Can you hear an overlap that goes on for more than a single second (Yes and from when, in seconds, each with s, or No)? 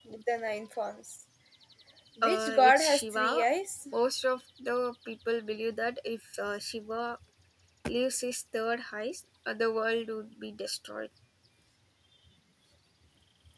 Yes, from 2.2 s